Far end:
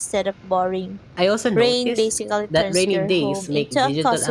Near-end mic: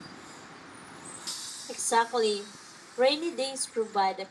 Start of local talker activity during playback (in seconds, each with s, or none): 1.7 s